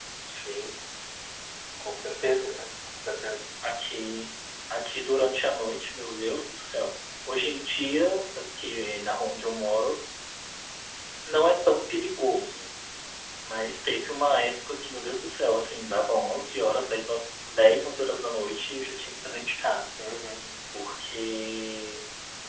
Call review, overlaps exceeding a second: none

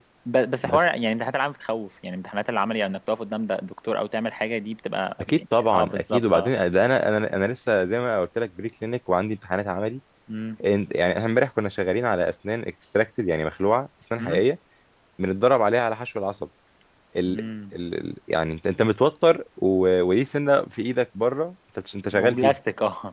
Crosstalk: present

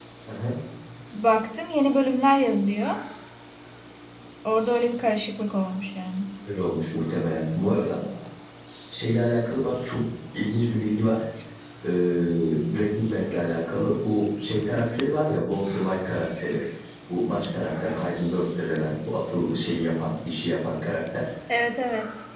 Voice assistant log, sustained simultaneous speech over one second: none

